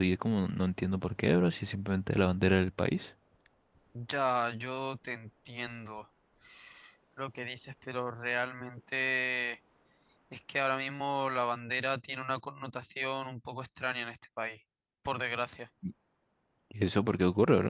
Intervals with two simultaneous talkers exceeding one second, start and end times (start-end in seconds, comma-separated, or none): none